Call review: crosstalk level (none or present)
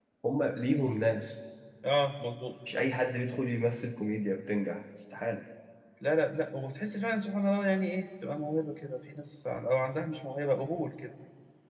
none